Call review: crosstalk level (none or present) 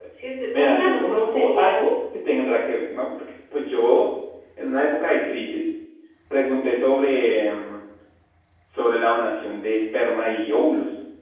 present